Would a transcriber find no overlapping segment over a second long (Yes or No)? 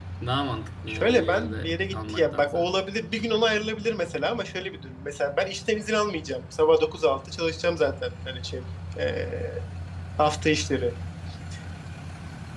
No